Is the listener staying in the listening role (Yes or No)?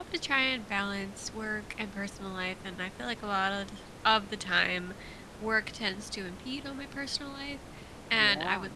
Yes